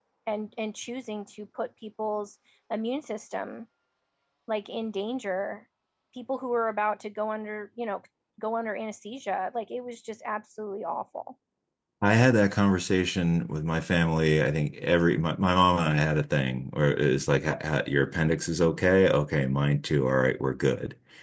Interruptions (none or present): none